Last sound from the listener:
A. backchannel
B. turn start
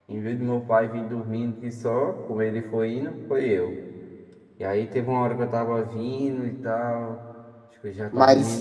A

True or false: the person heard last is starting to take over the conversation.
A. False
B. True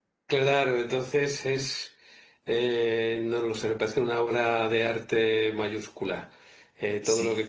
A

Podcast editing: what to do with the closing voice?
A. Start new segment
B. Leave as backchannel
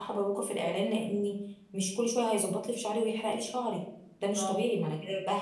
B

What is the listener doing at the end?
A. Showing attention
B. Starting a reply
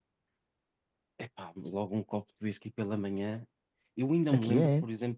A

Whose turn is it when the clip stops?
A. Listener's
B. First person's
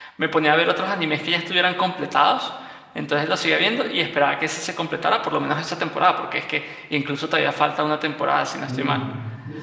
A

